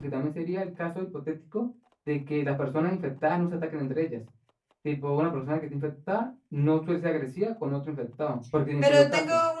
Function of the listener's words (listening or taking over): taking over